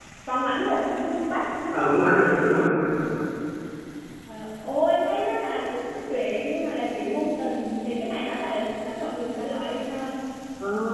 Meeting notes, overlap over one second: present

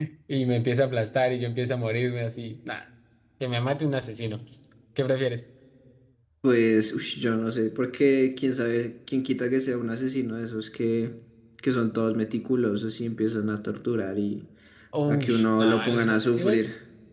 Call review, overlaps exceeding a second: present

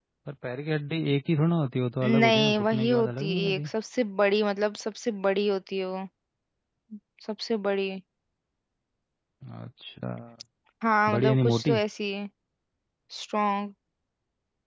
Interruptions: present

